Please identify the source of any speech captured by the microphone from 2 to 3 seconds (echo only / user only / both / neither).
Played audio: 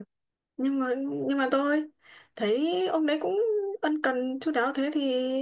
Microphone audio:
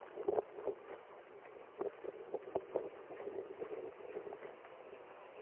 neither